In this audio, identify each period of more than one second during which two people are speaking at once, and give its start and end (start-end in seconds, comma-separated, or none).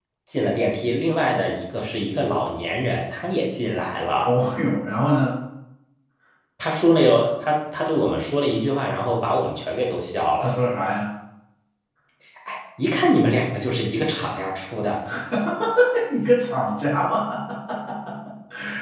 none